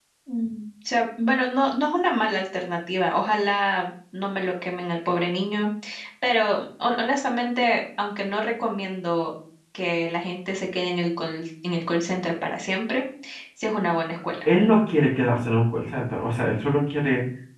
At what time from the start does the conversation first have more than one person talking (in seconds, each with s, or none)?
none